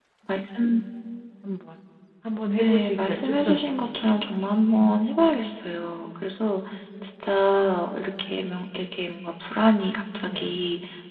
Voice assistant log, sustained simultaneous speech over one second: present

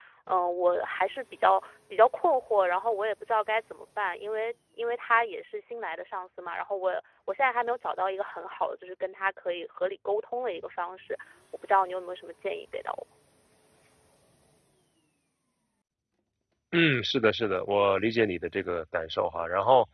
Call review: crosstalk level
none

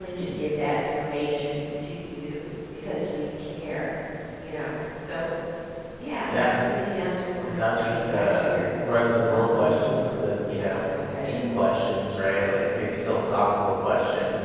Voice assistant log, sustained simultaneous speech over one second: present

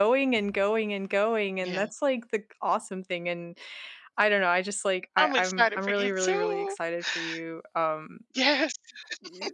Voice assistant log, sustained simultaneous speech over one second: present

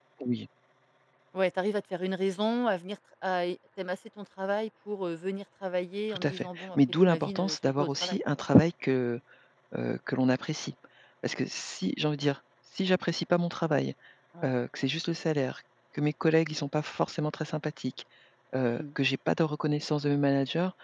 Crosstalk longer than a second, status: present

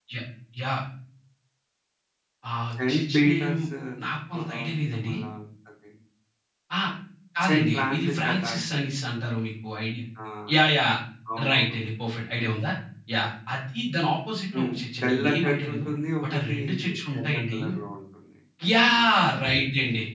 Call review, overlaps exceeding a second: present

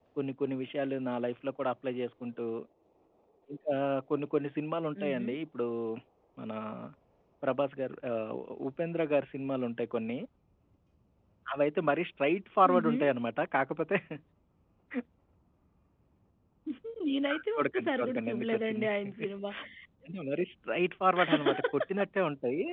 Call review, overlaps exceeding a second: present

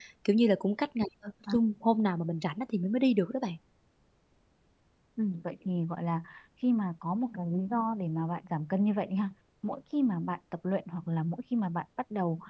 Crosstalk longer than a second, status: none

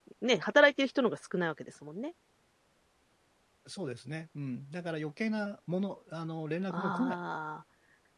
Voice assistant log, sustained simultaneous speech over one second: none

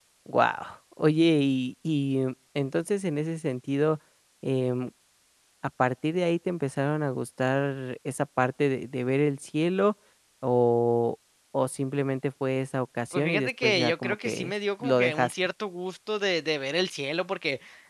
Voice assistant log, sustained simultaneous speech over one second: present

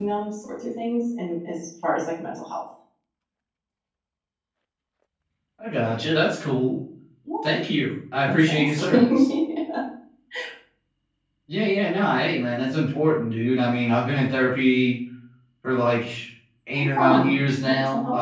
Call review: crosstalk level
present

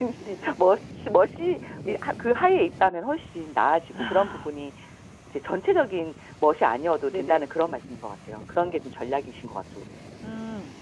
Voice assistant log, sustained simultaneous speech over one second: none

